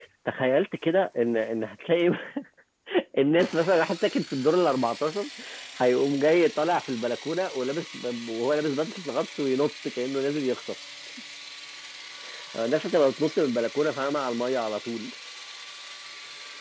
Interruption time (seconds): none

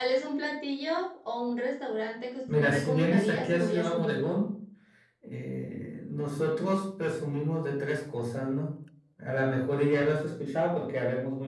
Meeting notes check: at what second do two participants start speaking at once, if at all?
2.5 s

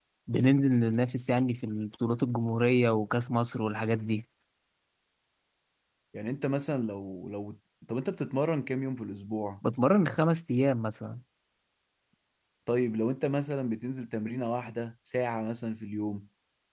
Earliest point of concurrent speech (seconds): none

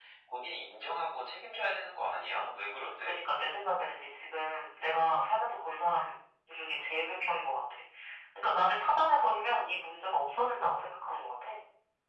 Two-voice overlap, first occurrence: none

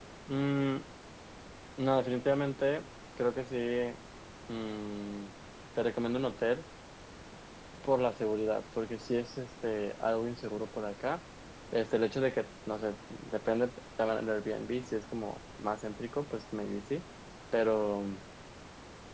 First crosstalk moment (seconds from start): none

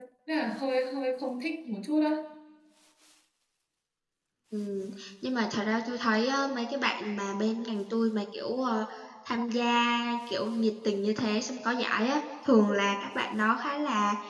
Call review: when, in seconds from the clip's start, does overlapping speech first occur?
none

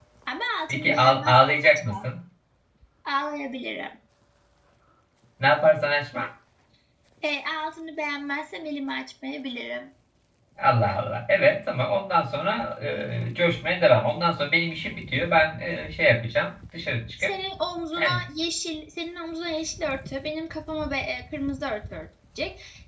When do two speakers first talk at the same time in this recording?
0.7 s

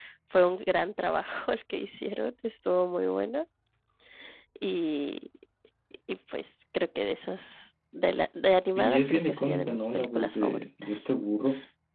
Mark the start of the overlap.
8.8 s

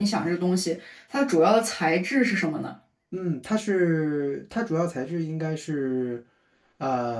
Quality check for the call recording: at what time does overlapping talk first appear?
none

